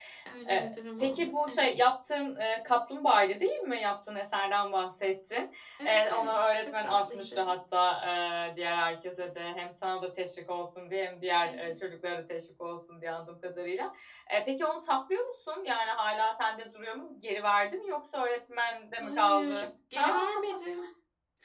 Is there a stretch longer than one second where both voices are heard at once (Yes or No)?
Yes